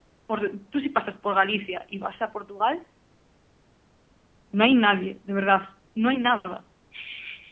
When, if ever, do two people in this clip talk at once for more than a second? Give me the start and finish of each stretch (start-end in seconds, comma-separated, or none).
none